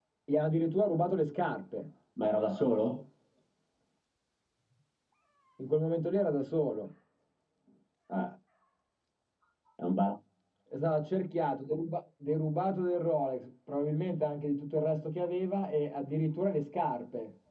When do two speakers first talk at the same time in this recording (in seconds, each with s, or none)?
none